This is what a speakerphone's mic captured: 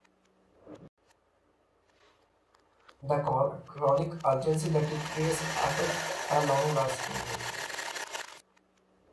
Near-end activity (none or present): present